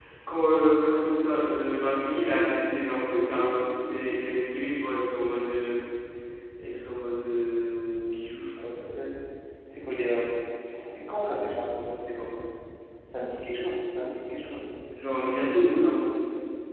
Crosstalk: none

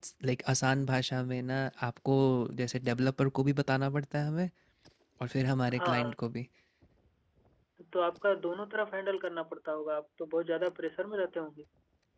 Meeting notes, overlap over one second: none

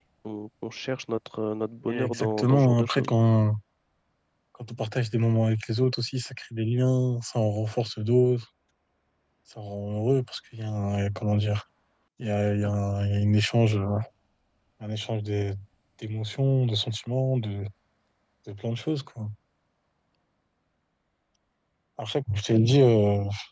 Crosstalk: present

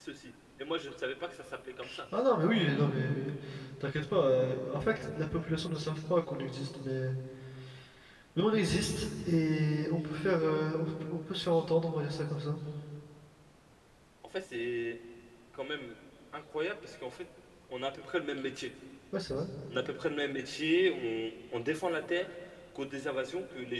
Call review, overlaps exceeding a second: none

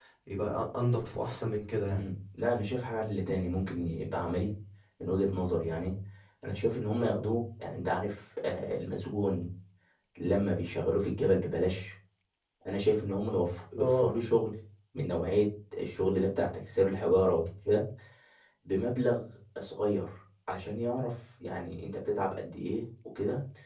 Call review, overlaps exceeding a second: none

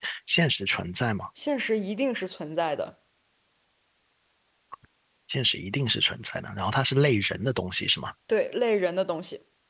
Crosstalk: none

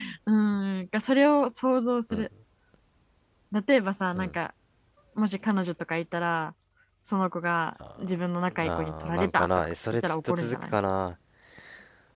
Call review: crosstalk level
present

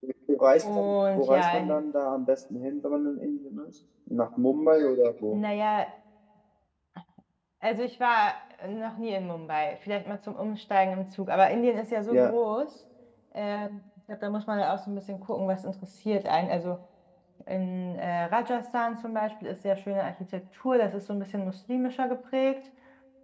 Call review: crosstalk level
present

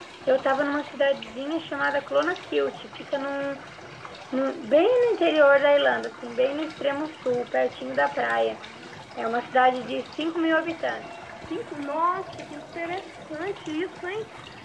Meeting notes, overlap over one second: none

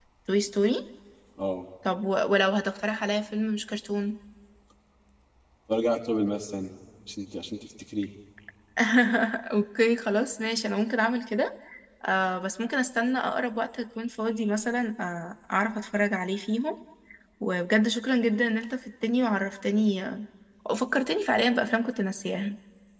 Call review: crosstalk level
none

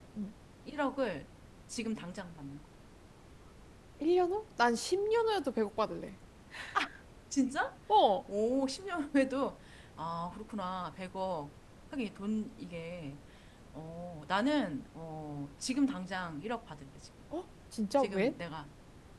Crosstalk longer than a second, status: none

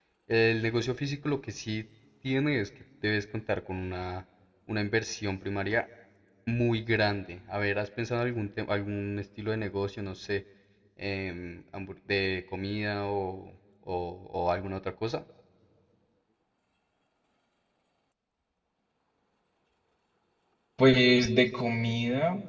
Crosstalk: none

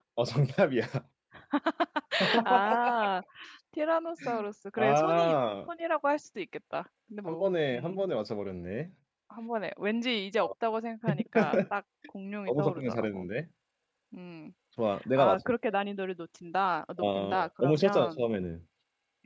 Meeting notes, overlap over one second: present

